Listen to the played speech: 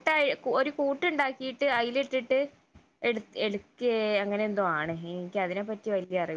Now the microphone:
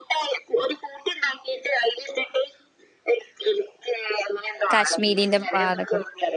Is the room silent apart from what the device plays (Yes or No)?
No